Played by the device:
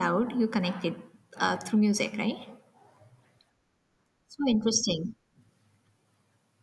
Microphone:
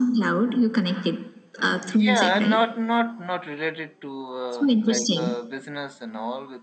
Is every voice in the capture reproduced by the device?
No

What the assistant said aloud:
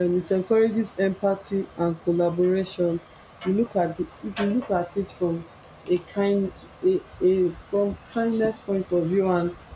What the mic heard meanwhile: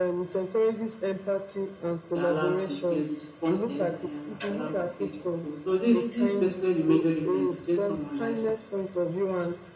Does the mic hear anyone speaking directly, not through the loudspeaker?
Yes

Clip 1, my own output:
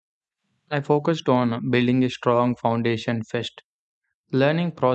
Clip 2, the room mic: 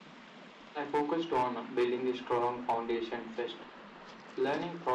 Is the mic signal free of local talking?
Yes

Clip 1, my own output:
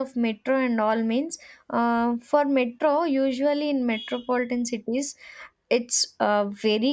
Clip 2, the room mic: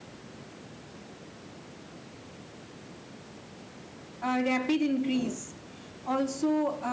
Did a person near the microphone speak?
Yes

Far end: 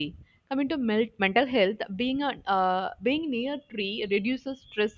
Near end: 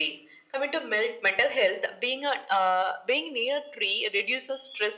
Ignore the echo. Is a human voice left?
No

